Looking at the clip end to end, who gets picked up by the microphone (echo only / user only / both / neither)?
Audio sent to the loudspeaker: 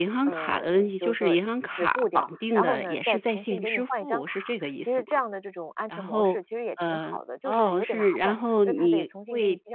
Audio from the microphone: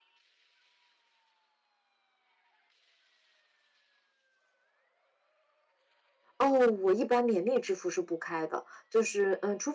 user only